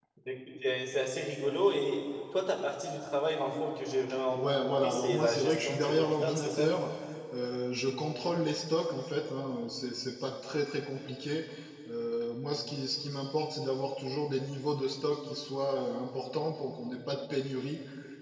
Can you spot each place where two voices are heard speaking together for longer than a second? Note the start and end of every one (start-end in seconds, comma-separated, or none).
4.3-6.7